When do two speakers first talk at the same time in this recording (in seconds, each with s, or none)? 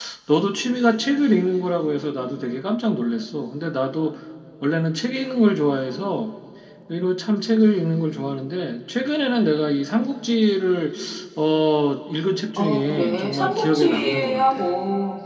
12.6 s